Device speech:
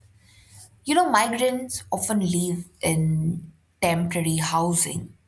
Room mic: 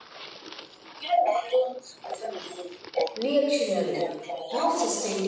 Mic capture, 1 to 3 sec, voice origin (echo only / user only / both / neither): echo only